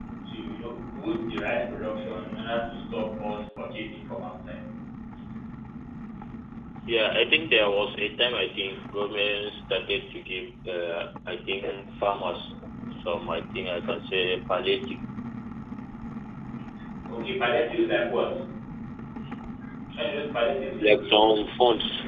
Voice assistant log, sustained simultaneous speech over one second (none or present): none